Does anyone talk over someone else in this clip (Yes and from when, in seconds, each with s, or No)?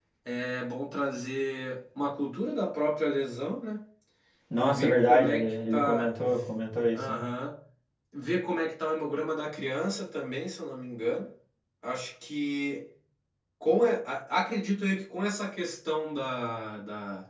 Yes, from 4.6 s